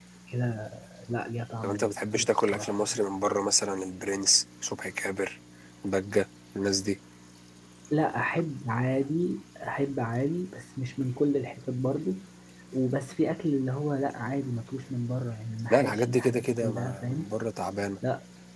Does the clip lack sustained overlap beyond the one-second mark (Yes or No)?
No